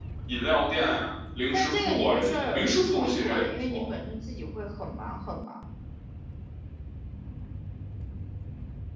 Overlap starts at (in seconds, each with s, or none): 1.5 s